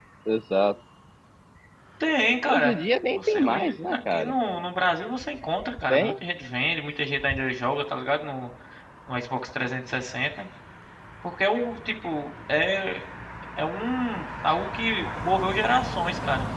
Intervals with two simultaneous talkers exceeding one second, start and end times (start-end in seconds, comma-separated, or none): 3.1-4.3